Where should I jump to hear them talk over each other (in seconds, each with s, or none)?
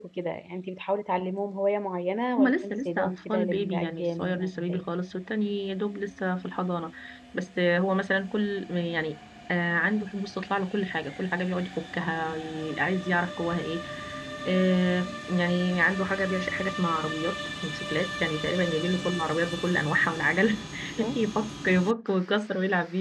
2.4 s